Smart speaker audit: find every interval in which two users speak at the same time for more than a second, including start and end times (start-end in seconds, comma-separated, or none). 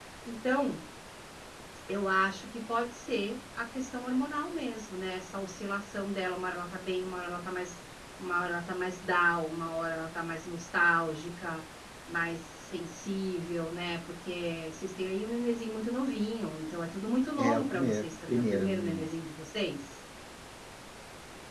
17.4-19.0